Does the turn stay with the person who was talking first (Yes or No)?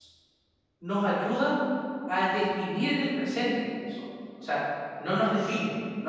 Yes